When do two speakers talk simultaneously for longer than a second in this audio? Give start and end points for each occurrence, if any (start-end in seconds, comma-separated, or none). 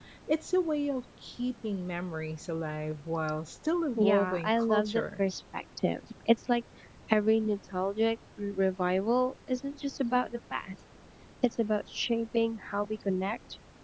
4.0-5.2